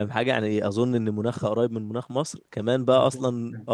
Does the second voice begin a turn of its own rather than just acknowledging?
No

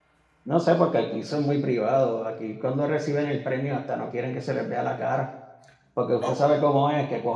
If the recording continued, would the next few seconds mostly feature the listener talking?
No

